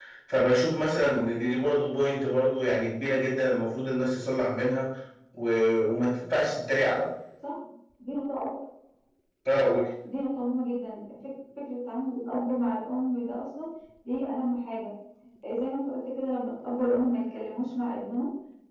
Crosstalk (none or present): none